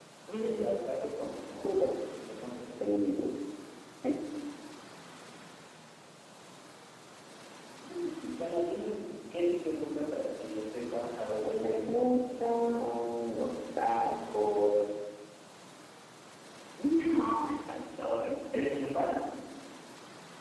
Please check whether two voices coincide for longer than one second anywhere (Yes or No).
Yes